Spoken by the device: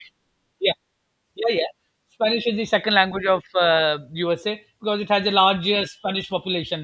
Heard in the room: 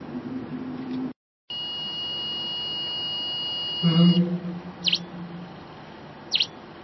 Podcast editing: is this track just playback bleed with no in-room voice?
No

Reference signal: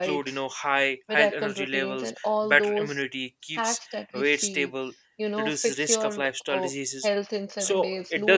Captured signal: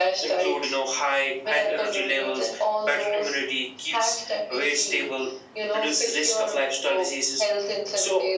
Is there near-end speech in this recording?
No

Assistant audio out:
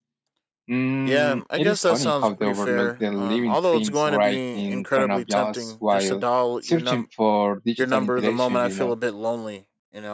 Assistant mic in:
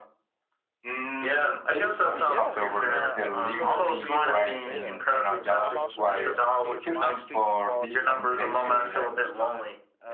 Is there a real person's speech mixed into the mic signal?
Yes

